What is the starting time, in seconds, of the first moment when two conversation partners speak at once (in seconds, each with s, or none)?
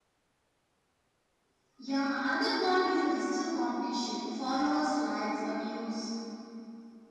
none